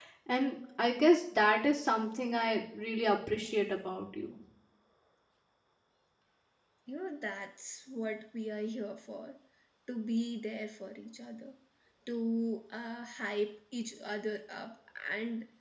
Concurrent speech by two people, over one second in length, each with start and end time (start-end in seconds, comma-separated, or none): none